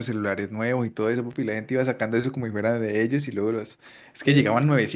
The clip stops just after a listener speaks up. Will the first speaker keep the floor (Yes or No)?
Yes